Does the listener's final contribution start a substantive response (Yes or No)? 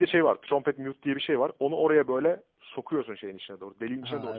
No